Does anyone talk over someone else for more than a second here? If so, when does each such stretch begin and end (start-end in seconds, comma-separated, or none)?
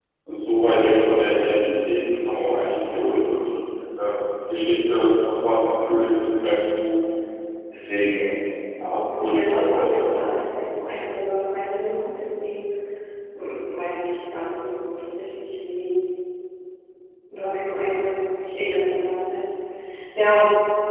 8.9-10.3